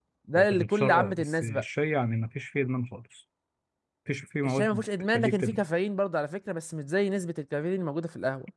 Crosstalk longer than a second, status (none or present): present